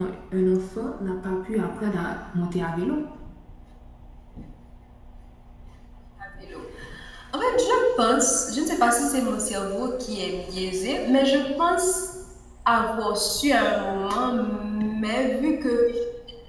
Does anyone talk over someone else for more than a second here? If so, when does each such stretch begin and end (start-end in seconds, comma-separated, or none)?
none